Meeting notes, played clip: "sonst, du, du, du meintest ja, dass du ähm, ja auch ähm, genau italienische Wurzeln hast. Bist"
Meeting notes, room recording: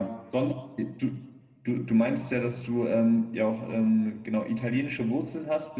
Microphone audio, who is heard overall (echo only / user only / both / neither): echo only